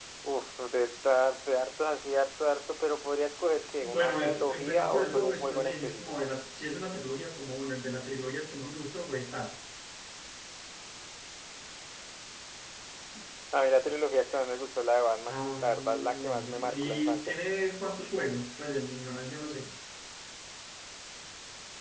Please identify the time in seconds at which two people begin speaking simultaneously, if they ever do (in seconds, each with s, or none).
3.8 s